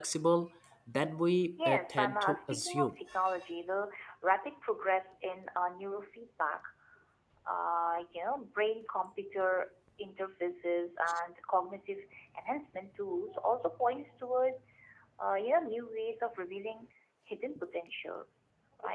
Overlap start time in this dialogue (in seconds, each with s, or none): 1.6 s